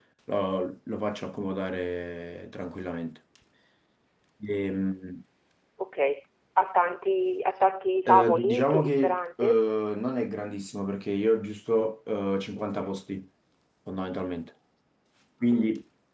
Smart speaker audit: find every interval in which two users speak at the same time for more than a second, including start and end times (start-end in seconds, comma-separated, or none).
8.1-9.6